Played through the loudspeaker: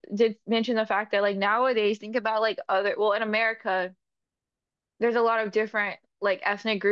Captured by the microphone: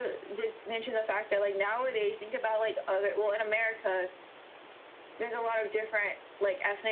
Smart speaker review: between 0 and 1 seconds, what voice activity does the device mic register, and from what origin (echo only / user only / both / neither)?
echo only